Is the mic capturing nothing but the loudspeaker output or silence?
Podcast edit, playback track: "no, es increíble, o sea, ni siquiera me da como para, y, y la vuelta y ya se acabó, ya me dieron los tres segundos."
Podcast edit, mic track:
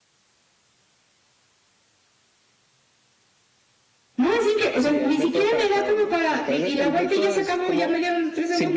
No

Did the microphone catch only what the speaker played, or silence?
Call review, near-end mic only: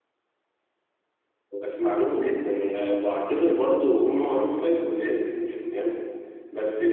Yes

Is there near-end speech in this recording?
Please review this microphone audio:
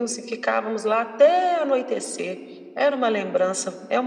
No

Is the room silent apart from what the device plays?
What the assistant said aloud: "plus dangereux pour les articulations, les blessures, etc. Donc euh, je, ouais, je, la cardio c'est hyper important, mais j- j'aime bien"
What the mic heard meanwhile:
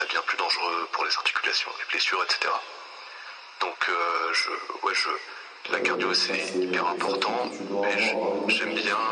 No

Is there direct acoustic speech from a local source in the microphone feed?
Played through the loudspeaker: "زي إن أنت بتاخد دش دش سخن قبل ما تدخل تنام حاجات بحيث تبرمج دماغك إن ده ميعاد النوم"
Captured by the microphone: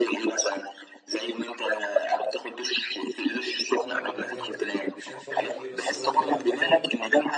Yes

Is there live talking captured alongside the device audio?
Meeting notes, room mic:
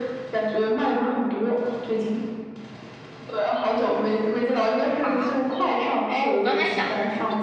Yes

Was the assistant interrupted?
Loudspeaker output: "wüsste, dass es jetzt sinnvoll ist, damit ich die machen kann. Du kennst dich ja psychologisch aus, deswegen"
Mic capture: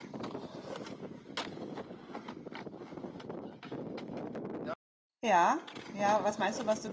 Yes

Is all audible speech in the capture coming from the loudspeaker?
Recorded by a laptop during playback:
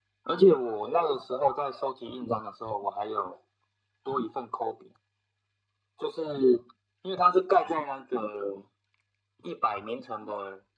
Yes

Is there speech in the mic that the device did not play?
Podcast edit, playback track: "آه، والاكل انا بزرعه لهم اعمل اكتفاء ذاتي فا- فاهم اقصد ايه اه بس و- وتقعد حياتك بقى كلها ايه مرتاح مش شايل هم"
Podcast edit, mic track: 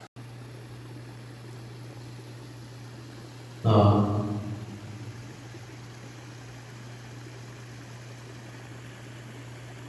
Yes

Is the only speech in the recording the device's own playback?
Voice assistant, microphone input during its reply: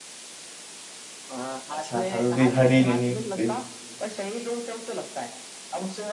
No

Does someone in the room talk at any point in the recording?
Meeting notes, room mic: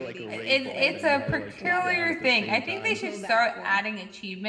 Yes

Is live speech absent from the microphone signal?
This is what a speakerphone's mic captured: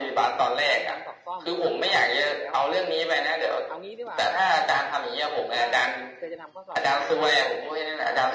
No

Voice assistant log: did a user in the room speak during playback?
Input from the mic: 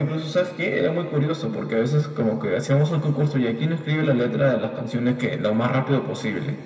No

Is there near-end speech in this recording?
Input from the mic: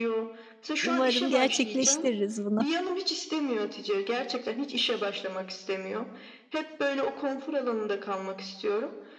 Yes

